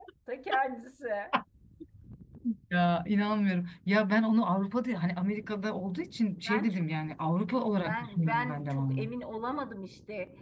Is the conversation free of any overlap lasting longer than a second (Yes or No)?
No